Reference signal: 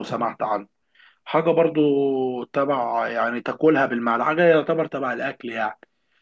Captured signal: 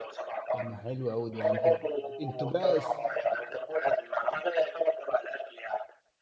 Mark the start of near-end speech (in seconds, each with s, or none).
0.5 s